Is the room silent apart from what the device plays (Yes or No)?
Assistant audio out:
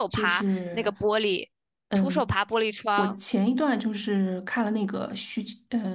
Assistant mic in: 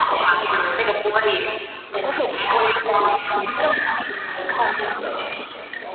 Yes